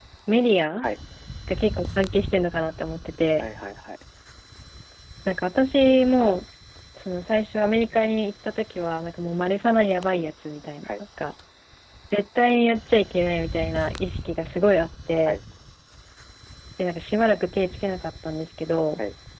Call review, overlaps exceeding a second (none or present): none